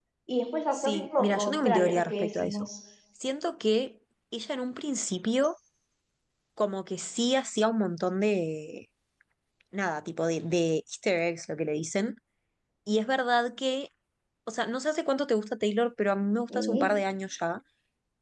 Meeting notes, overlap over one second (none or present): present